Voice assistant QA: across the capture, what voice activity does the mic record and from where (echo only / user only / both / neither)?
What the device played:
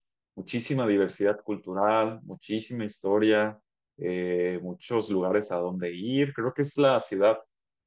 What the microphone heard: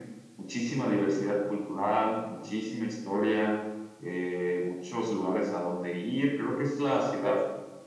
echo only